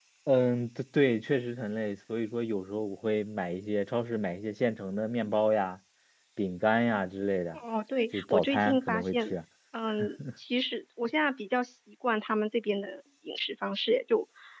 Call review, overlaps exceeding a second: present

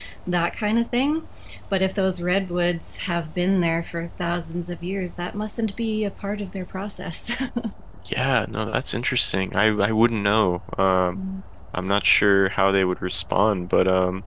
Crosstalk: none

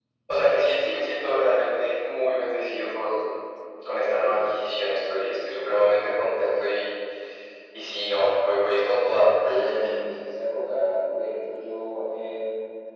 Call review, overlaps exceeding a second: none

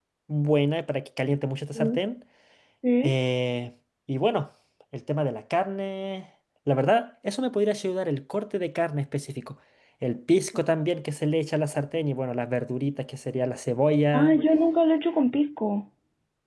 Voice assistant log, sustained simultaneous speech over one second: none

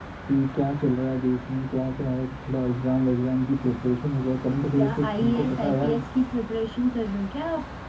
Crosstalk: present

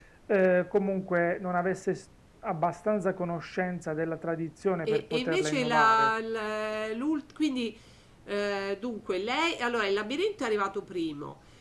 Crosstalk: present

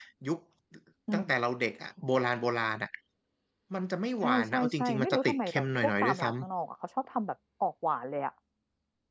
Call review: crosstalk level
present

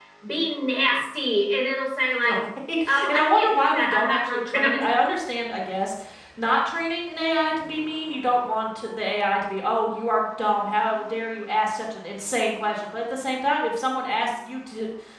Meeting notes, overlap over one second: present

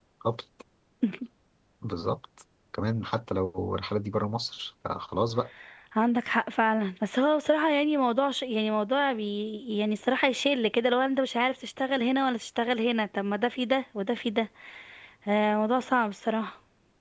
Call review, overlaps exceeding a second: none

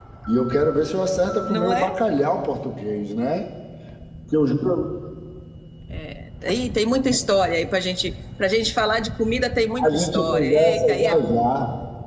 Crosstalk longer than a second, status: present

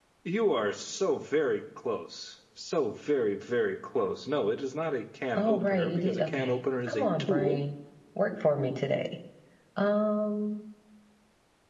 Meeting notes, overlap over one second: present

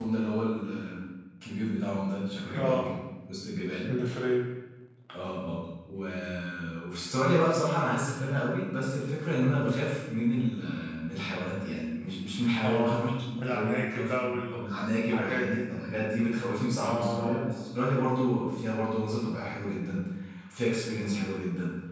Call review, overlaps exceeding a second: present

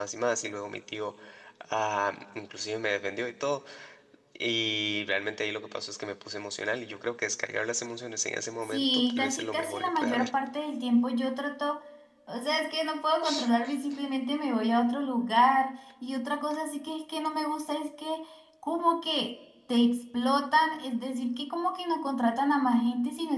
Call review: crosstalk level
present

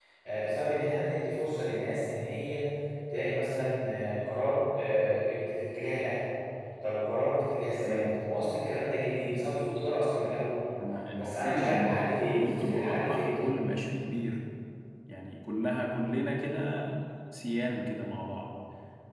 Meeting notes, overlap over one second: present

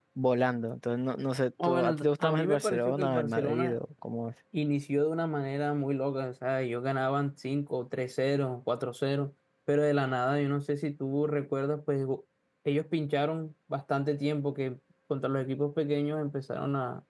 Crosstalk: present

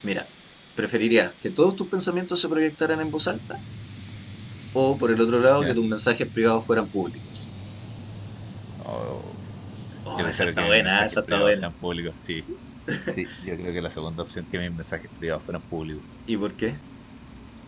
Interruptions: present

